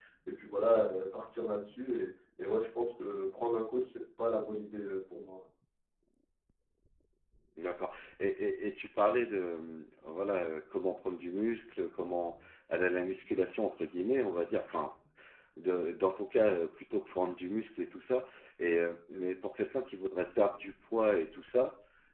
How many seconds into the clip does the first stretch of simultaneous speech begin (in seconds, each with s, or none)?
none